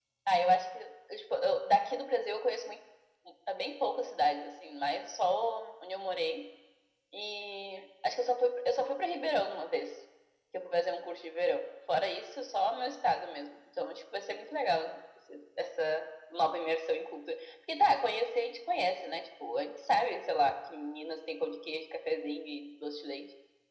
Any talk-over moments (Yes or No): No